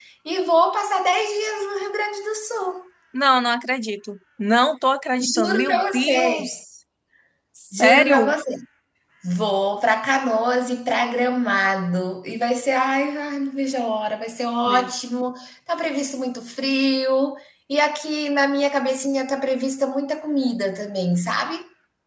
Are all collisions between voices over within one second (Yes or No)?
No